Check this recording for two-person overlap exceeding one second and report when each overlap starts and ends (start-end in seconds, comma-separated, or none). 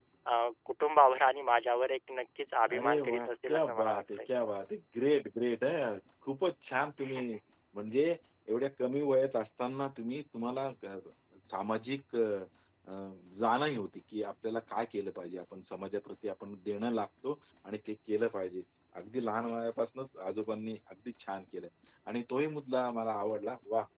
2.7-4.2